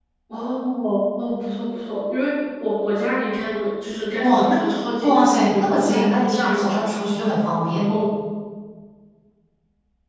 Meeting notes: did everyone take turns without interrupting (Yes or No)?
No